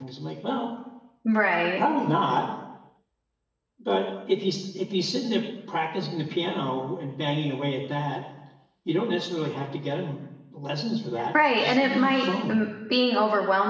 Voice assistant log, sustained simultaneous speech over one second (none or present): present